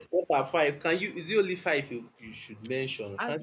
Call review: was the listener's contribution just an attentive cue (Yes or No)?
No